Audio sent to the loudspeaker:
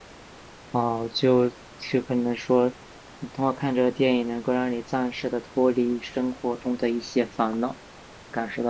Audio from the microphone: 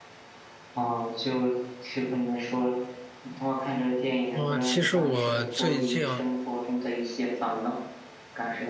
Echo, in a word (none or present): present